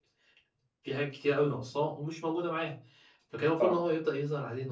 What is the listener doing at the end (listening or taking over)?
listening